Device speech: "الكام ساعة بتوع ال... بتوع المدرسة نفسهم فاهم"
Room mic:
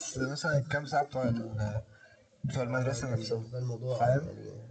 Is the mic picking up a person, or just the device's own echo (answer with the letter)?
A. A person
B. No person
A